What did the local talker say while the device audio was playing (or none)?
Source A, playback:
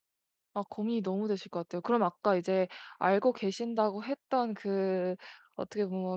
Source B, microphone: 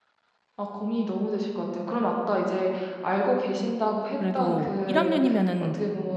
그래도 1 학년이면은